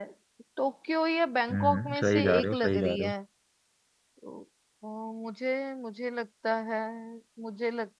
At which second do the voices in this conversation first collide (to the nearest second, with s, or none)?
1 s